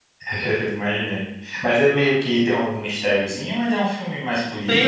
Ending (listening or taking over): taking over